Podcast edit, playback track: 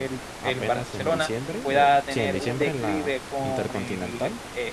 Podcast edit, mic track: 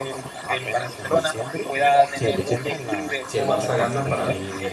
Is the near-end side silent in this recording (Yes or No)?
No